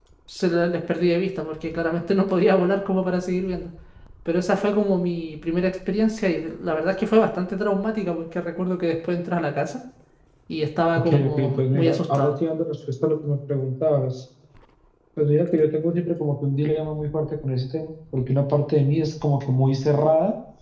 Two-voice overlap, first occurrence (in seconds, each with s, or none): 10.9 s